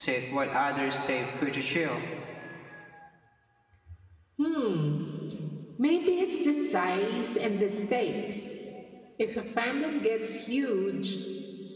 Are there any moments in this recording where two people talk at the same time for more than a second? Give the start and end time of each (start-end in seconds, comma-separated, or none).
none